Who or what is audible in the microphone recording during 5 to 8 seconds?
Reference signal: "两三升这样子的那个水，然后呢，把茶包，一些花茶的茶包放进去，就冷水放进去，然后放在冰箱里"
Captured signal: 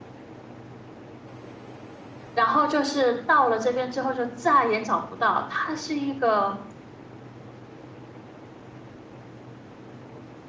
user only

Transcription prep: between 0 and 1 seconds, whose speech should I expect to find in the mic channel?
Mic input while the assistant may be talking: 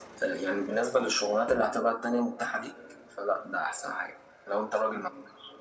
echo only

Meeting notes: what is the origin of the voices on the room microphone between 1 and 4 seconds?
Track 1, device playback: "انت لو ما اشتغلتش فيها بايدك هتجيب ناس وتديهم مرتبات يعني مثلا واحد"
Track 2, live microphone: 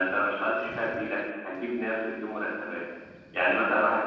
echo only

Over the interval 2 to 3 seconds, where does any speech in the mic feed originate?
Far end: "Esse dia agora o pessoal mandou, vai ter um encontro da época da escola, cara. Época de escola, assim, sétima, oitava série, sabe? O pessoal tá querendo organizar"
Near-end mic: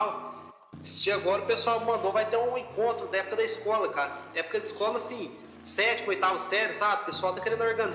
echo only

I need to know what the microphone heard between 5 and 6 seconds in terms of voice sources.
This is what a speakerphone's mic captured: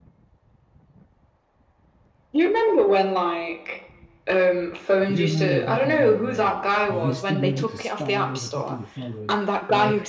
both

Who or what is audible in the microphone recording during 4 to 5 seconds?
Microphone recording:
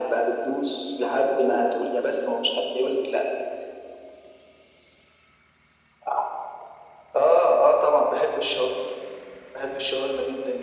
neither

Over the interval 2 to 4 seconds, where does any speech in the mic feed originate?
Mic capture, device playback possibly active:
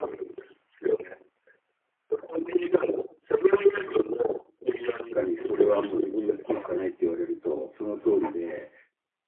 echo only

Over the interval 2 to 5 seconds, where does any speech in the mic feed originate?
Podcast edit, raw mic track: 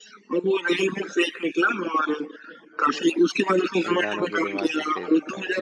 both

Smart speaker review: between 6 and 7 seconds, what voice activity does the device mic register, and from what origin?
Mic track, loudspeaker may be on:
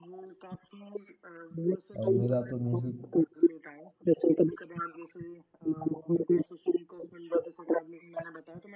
echo only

